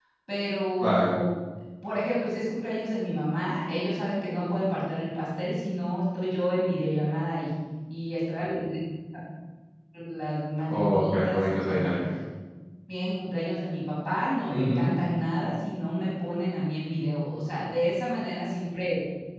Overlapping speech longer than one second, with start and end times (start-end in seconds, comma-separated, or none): 10.7-11.9